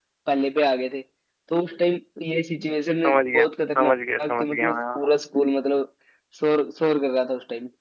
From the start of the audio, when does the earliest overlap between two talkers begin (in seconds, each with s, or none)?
2.9 s